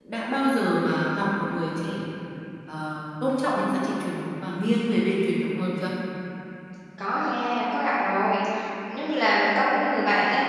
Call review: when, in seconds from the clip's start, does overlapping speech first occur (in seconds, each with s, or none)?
none